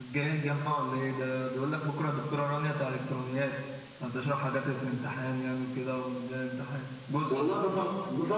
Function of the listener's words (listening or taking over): taking over